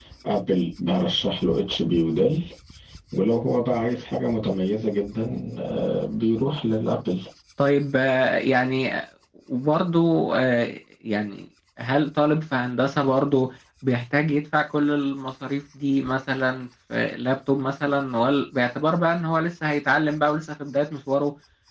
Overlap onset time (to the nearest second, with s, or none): none